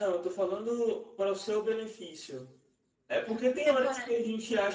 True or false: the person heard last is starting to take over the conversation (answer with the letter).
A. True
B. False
B